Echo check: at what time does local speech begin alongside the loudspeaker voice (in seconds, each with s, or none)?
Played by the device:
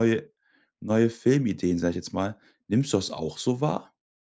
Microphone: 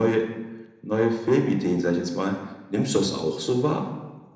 none